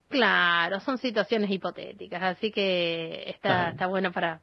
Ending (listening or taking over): listening